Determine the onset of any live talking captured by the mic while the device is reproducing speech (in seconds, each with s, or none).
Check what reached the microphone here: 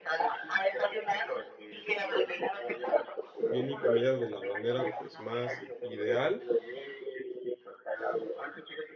3.5 s